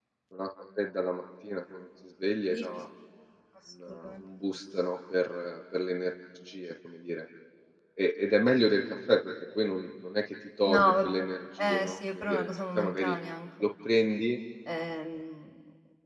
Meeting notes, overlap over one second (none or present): present